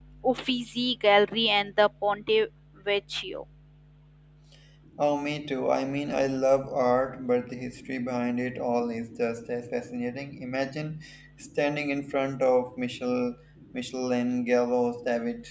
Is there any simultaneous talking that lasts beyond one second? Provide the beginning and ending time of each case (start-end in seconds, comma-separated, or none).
none